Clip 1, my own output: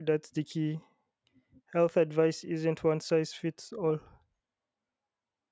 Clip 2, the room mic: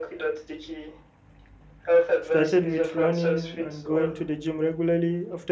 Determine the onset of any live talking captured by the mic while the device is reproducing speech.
2.2 s

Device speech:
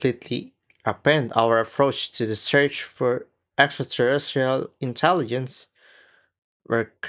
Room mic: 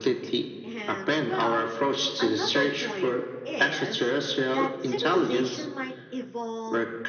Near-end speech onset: 0.6 s

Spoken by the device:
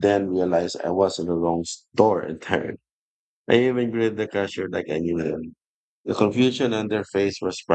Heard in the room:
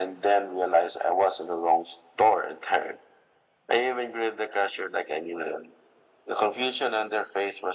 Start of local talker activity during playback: none

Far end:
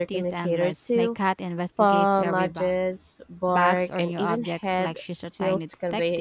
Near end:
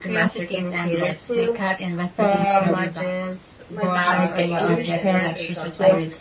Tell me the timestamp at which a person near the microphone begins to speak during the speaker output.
3.7 s

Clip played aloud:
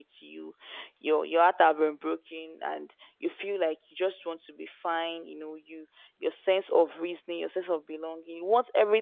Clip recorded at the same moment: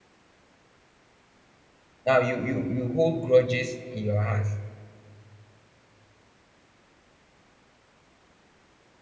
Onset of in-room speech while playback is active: 2.0 s

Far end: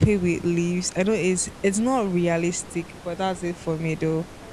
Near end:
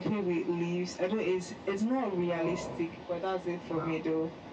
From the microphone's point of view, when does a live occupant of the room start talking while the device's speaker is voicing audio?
2.1 s

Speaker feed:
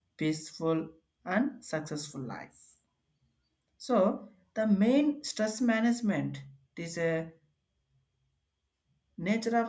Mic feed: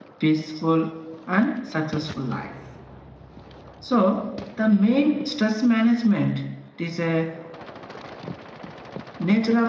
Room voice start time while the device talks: none

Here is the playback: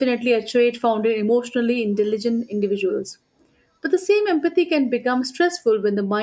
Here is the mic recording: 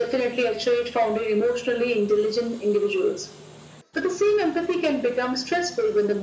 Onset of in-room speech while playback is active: none

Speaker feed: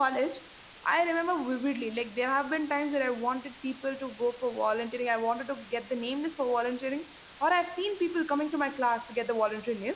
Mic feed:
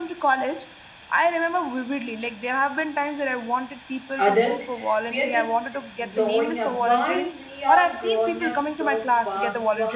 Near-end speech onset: 4.2 s

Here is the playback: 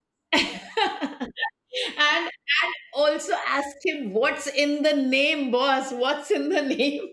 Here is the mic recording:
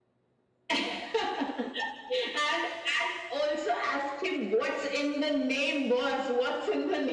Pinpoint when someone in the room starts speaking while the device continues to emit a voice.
none

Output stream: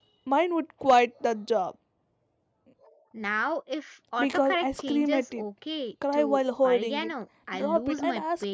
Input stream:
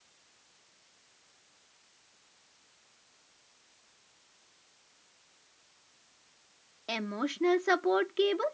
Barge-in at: 6.9 s

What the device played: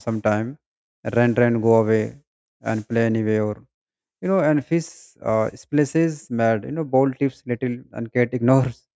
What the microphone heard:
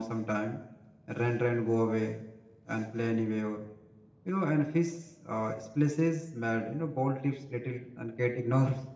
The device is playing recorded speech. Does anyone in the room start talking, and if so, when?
none

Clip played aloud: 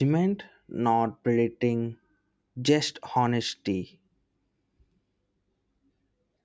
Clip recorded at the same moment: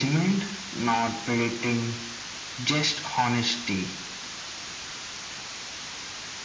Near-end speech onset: none

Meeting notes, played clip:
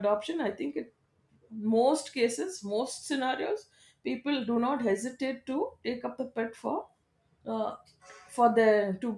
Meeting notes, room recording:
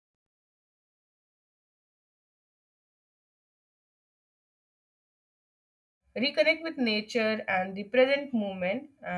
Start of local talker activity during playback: 6.2 s

